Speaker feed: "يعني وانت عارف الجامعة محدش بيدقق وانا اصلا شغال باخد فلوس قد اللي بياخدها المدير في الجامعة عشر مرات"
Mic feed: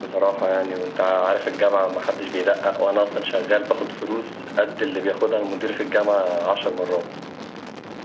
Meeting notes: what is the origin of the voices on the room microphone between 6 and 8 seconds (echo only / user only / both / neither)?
echo only